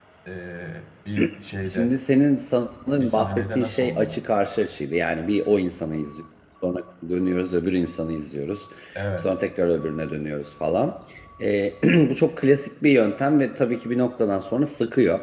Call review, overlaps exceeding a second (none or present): present